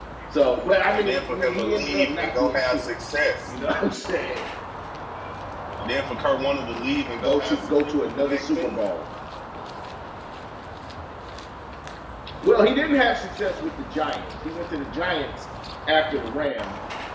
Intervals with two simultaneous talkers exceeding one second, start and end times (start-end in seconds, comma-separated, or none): 0.9-2.9, 7.2-8.8